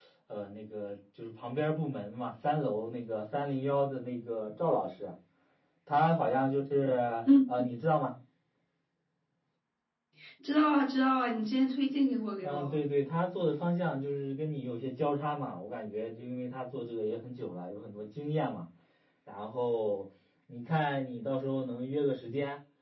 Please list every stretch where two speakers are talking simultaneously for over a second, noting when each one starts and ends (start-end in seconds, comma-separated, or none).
none